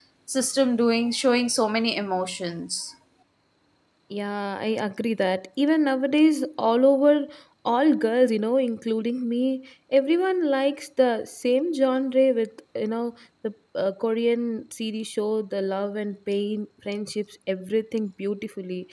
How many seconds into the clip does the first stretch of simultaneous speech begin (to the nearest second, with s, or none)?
none